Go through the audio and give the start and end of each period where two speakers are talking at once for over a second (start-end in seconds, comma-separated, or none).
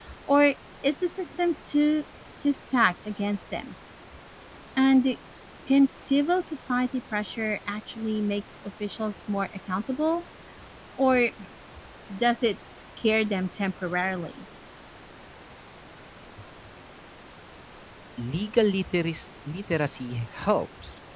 none